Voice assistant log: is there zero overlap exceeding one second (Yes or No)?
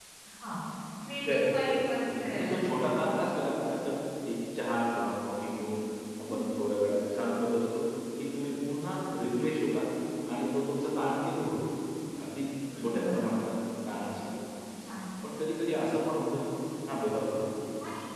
No